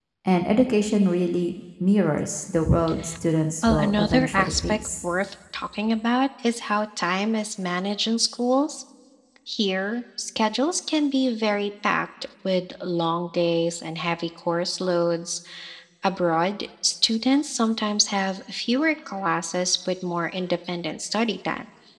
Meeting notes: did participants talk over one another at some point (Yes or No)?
Yes